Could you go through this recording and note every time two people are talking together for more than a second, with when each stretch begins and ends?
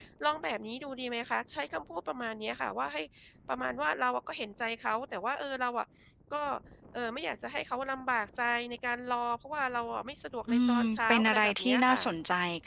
10.5-12.1

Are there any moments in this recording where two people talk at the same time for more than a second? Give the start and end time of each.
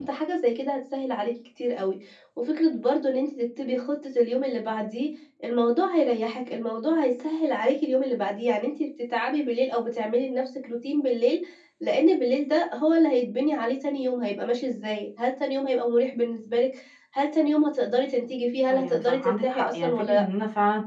18.7-20.2

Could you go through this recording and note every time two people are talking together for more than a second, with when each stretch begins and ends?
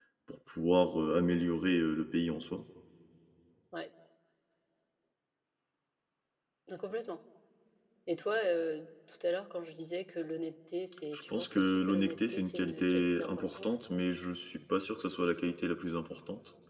11.1-13.8

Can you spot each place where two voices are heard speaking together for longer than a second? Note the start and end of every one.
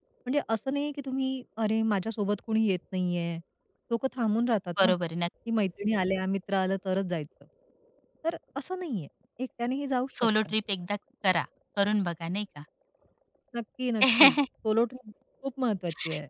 none

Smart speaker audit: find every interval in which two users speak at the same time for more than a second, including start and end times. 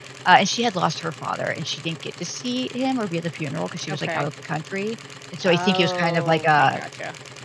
5.4-6.8

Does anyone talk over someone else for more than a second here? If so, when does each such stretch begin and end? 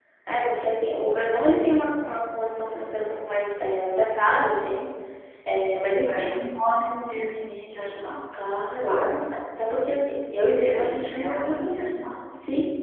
10.6-11.9

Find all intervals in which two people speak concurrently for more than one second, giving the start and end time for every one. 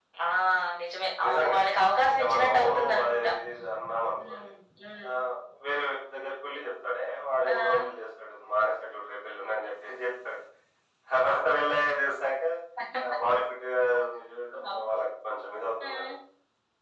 2.1-3.3

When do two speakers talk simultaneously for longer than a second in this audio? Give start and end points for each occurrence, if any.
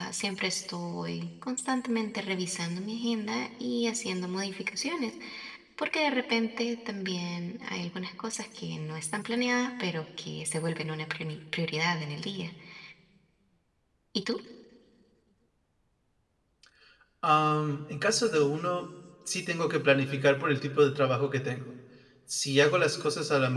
none

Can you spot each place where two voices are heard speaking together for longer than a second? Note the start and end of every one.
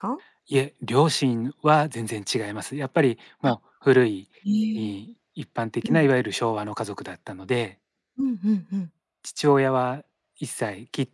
none

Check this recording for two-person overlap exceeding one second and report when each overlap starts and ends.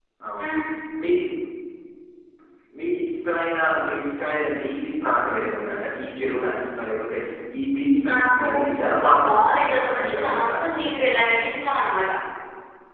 9.1-10.6

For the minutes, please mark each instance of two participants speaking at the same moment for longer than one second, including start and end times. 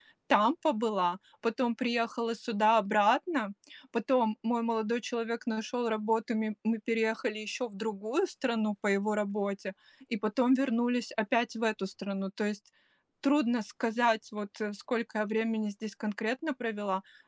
none

